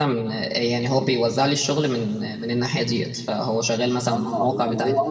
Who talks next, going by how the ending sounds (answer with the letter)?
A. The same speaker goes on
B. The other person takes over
B